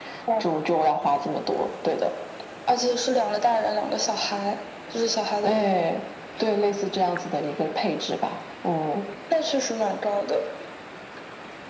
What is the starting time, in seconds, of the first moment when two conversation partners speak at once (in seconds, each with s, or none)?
none